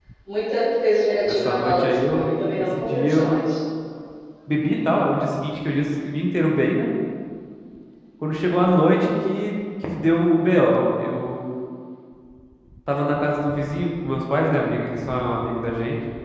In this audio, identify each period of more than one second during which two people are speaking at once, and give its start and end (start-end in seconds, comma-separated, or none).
1.3-3.3